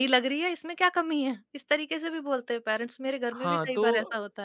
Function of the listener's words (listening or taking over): taking over